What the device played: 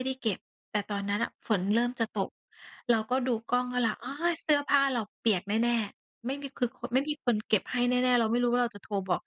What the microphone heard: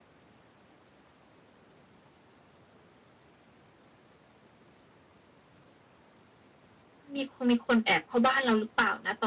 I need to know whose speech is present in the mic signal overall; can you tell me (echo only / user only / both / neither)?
user only